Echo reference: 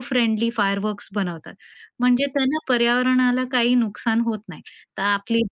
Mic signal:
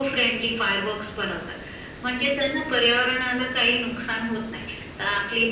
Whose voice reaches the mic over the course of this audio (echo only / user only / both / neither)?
echo only